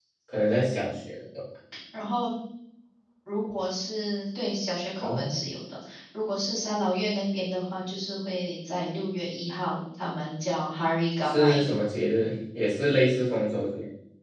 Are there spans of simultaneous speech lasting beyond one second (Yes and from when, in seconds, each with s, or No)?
No